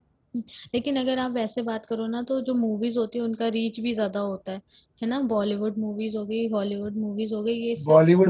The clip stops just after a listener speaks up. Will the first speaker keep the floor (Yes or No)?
No